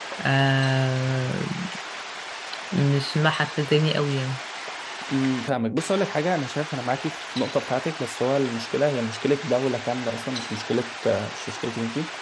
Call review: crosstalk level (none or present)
none